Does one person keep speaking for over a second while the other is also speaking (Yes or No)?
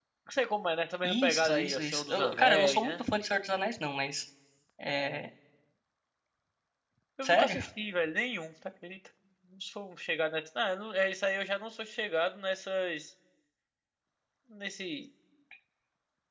Yes